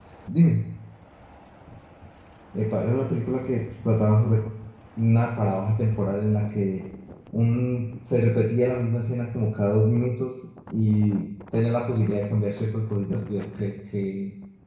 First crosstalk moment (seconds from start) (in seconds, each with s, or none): none